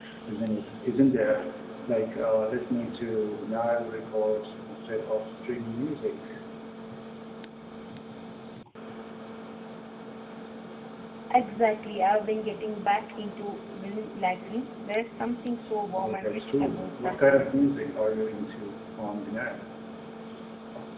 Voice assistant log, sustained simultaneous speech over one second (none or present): present